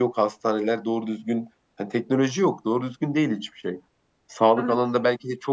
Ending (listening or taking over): listening